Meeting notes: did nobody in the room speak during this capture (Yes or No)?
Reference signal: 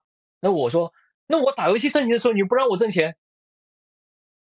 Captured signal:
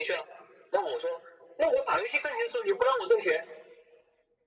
Yes